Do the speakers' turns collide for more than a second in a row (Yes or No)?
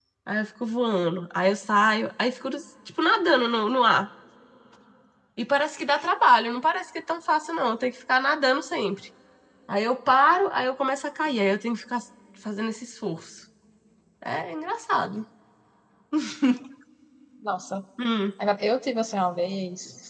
No